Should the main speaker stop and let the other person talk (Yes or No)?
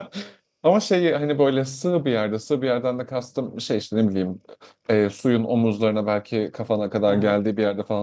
No